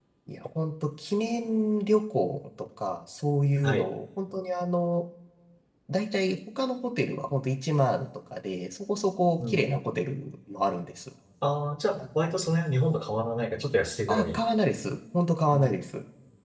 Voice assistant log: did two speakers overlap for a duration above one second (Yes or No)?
No